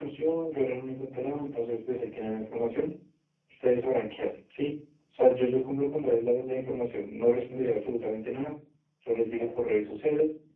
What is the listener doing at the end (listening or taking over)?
listening